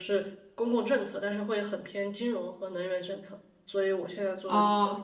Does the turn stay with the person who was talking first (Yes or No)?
Yes